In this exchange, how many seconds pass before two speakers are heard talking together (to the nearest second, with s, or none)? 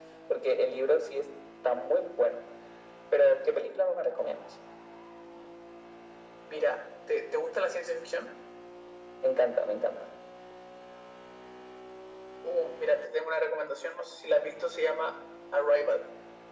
none